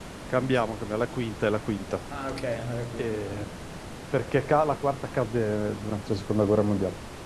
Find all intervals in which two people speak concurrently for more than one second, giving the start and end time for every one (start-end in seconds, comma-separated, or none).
none